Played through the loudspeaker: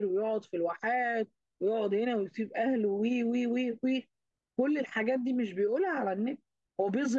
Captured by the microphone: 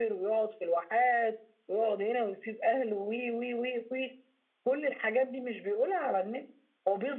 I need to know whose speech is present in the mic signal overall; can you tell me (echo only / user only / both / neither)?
echo only